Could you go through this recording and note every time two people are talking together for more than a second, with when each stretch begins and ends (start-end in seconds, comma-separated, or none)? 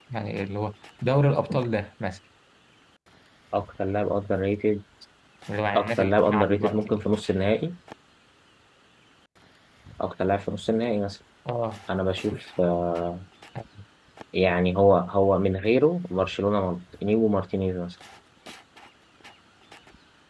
5.7-7.0